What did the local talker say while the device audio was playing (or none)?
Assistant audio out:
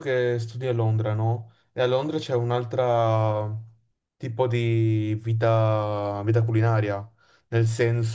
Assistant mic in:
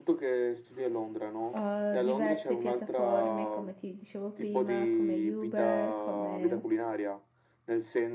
eh, diverse piattaforme, come ti dicevo prima, come Uber, come